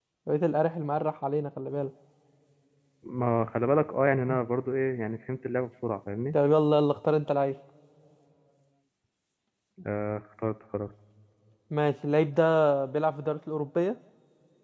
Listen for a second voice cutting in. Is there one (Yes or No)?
No